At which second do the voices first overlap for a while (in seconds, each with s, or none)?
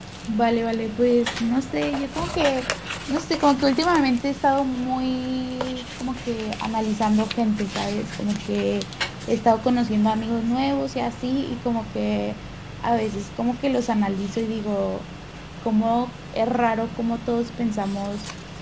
none